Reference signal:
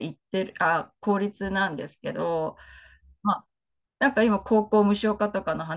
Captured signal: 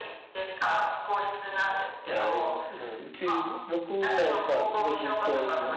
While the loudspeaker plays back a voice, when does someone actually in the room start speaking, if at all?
2.0 s

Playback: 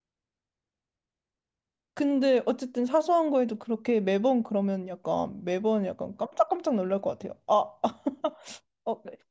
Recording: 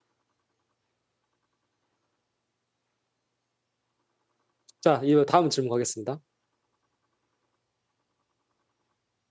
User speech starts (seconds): 4.8 s

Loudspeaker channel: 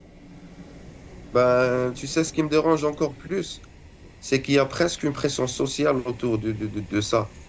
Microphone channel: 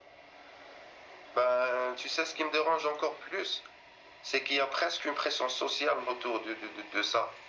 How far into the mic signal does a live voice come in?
none

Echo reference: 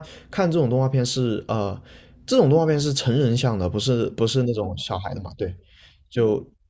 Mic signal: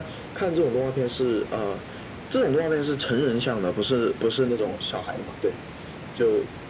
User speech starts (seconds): none

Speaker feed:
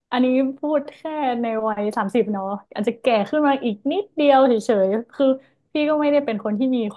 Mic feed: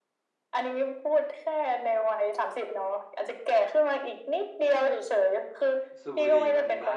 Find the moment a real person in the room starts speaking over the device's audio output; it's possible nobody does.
6.0 s

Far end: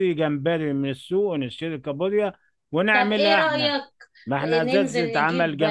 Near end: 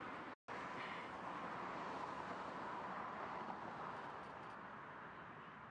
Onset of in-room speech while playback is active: none

